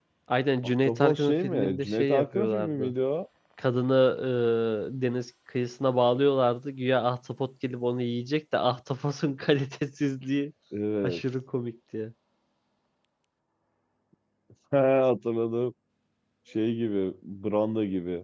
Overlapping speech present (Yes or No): Yes